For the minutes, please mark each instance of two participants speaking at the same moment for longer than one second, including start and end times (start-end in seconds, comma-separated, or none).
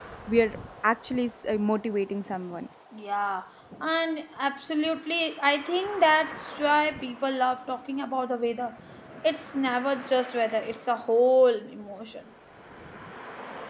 none